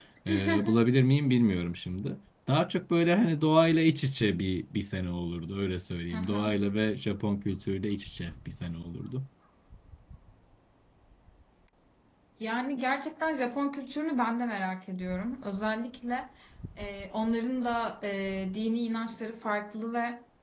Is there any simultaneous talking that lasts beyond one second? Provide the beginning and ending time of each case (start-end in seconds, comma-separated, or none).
none